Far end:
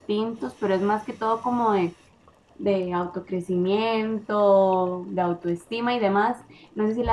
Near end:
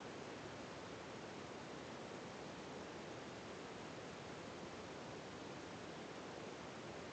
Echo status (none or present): none